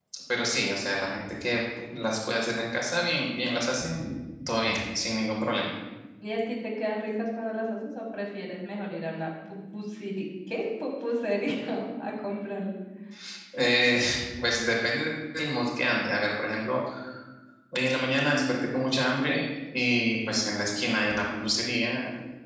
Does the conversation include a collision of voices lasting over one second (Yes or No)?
No